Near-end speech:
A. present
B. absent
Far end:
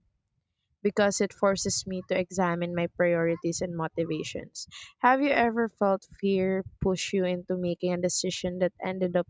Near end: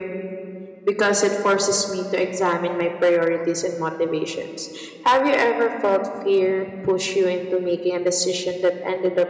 B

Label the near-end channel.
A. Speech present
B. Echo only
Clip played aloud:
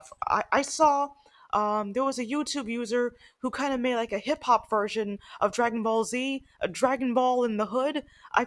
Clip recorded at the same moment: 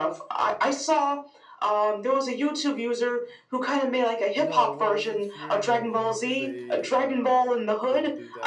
A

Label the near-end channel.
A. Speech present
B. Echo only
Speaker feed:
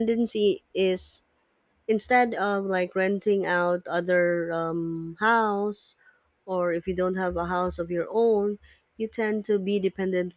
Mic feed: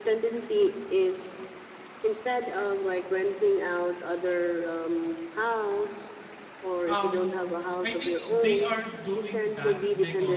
A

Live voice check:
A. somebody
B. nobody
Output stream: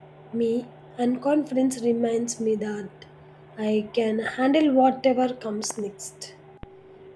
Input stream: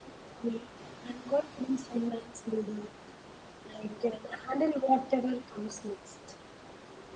B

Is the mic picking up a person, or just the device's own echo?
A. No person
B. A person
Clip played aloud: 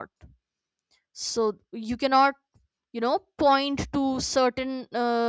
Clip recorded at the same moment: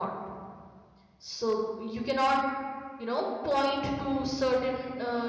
A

